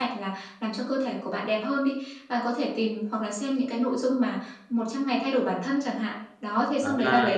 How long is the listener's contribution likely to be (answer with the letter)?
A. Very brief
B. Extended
A